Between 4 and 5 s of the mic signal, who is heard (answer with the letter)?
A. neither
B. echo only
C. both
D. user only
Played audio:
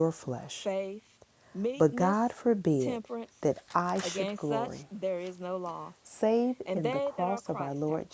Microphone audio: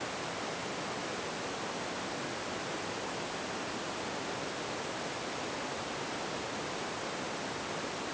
A